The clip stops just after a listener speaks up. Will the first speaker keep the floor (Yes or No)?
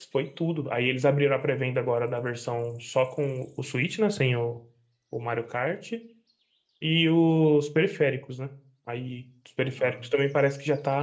Yes